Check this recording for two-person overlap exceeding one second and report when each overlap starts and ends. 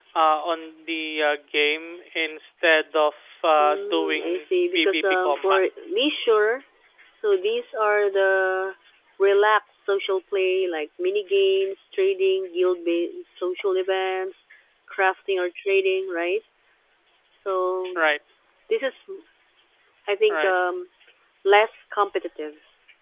3.6-5.6

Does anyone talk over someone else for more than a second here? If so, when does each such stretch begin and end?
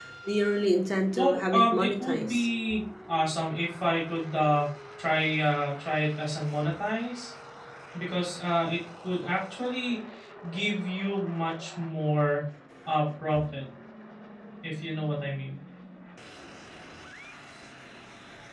1.1-2.5

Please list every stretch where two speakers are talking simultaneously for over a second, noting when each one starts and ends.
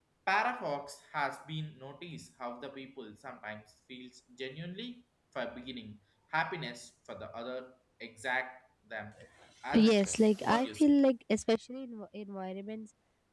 9.7-10.9

